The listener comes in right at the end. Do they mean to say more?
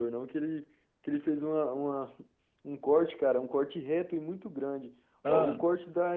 No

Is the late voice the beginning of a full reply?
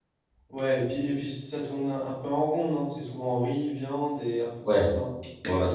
Yes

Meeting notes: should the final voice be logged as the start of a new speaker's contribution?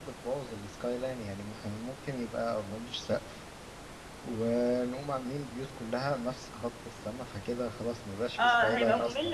Yes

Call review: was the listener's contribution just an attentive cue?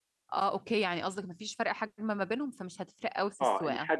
No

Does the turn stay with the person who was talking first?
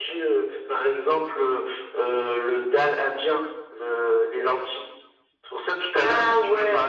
Yes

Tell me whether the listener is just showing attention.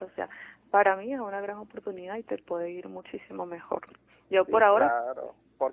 No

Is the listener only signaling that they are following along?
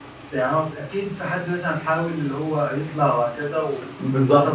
No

